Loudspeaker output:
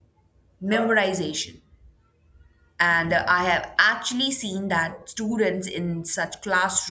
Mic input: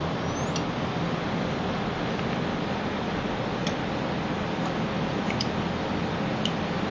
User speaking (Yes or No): No